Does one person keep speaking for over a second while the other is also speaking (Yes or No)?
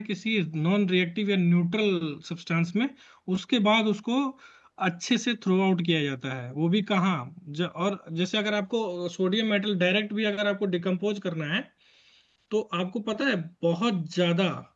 No